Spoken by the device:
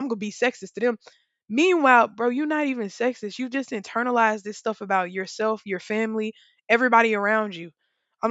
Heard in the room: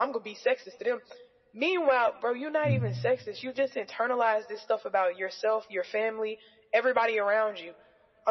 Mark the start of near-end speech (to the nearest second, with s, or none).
3 s